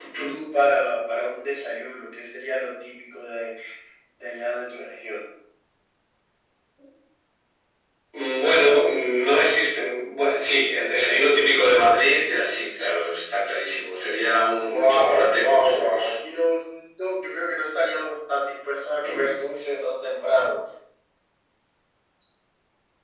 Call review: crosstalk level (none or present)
present